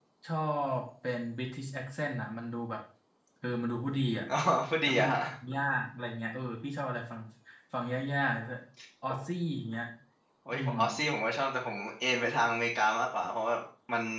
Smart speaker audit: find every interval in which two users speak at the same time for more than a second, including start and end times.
none

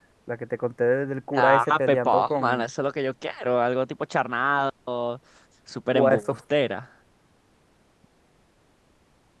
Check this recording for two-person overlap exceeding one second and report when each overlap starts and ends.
1.3-2.7

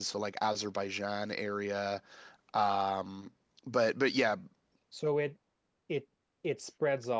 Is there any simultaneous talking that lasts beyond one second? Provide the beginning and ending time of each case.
none

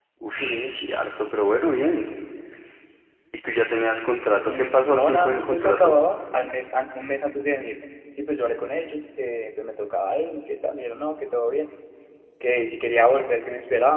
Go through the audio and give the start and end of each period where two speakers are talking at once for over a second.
4.5-6.0

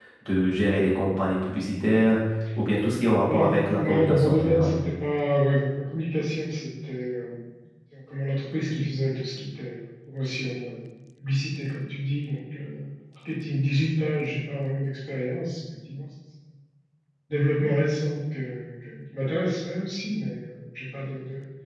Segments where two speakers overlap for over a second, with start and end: 3.3-4.7

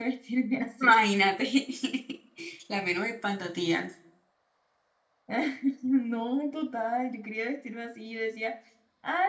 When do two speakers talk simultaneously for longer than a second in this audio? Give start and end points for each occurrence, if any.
none

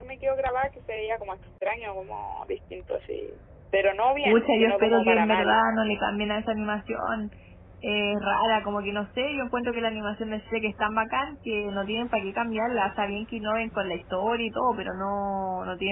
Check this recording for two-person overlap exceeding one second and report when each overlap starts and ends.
4.2-5.6

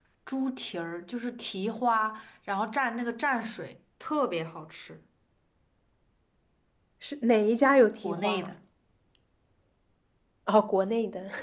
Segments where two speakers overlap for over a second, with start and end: none

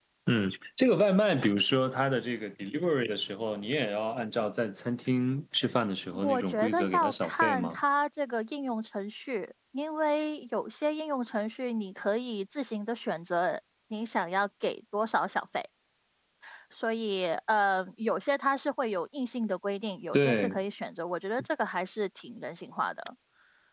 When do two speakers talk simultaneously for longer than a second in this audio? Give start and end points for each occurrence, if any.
6.2-7.8

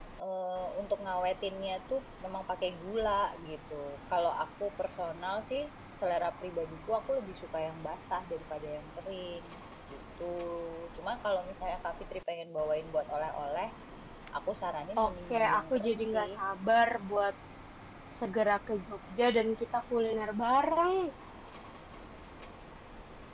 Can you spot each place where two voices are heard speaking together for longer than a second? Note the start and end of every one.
15.0-16.3

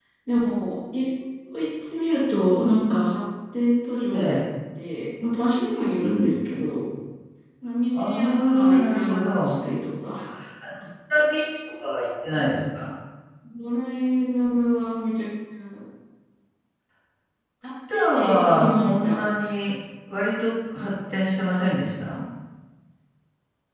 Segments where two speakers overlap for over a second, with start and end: 8.0-9.6, 17.9-19.2

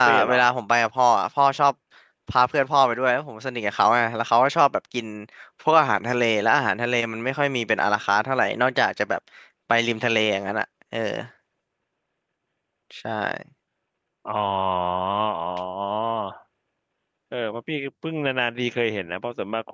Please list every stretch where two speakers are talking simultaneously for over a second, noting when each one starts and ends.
none

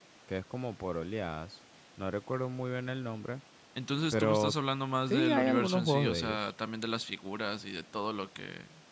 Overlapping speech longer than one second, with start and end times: 5.1-6.5

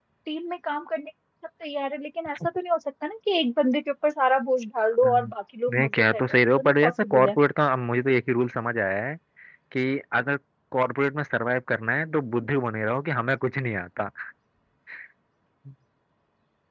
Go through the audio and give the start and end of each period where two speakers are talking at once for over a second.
5.8-7.4

